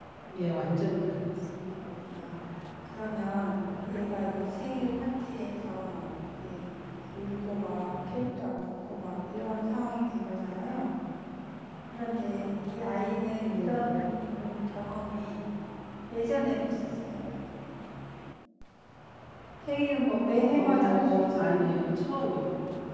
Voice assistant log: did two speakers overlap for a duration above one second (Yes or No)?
Yes